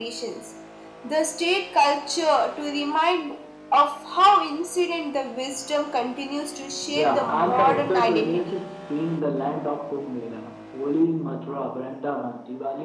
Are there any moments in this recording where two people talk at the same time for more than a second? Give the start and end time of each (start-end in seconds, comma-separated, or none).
7.0-8.4